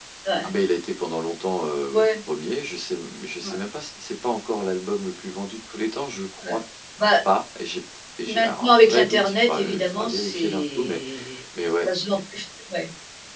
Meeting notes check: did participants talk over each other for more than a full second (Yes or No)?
Yes